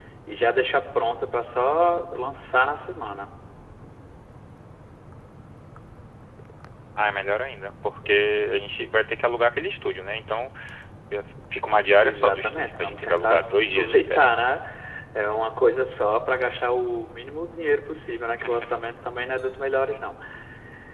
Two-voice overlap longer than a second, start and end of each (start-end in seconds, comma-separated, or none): 12.0-14.4